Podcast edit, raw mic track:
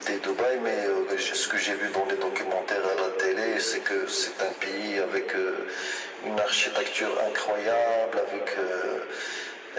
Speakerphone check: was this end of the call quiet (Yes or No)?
Yes